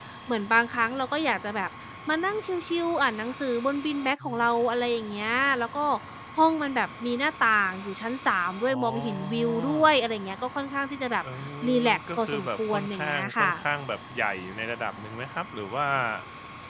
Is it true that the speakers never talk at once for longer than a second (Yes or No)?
No